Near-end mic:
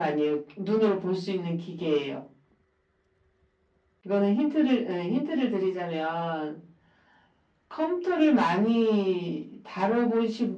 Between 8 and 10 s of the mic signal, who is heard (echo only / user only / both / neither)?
echo only